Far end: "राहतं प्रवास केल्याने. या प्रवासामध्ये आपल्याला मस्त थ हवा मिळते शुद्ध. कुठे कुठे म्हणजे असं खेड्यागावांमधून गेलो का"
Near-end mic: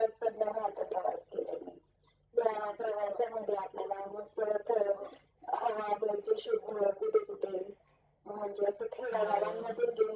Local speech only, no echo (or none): हो